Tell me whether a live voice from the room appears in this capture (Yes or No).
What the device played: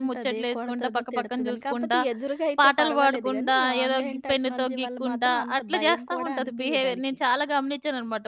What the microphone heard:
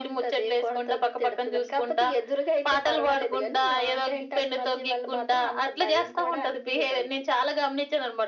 No